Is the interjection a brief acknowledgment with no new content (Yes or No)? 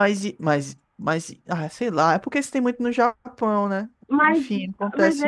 No